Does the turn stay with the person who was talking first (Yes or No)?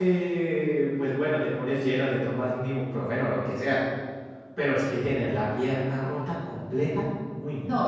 No